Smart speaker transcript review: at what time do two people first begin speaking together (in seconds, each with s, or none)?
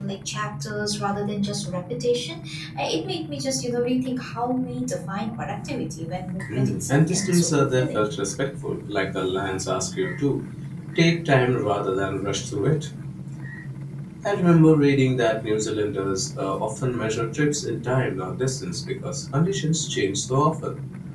6.4 s